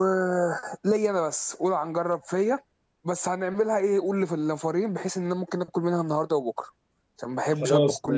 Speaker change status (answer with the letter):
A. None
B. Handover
B